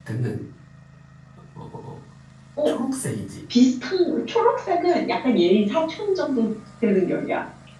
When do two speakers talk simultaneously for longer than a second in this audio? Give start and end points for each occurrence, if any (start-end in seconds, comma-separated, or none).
none